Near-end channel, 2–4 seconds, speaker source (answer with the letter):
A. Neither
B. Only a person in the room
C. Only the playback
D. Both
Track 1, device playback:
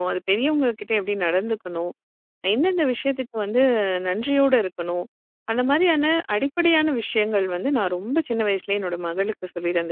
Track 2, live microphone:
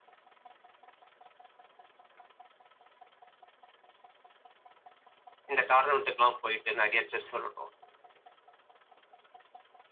A